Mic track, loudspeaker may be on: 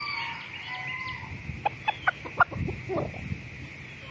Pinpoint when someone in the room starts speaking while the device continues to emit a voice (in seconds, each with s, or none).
none